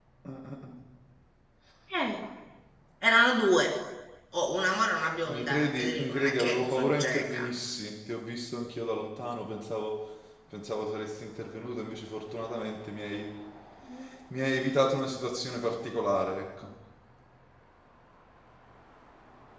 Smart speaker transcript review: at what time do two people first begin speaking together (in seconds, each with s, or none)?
5.2 s